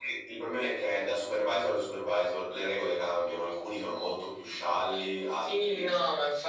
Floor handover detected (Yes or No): Yes